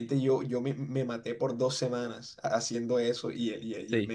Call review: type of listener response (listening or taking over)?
listening